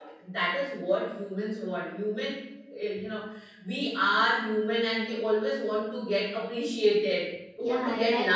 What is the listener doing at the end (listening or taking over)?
taking over